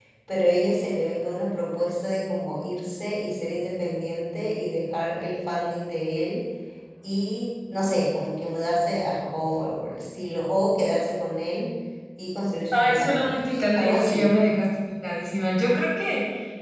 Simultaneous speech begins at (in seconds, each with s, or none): 12.7 s